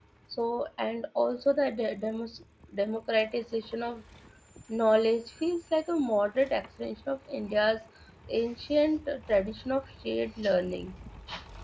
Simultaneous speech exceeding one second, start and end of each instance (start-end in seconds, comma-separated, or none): none